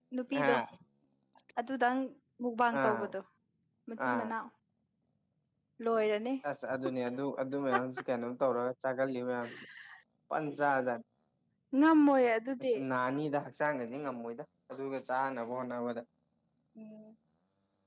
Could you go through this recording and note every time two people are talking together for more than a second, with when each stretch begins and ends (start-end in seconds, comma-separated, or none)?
none